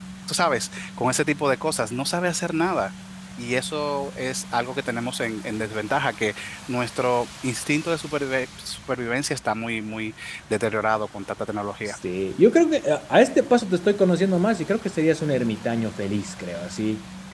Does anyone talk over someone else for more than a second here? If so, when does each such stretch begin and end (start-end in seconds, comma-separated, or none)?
none